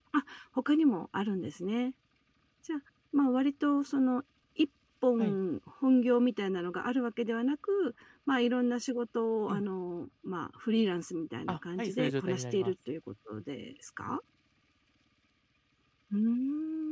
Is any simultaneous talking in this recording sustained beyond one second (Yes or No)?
Yes